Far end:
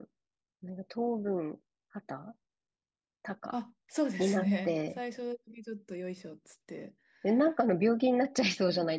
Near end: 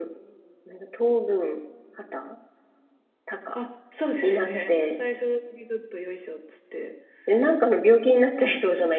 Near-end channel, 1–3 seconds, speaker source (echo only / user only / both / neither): echo only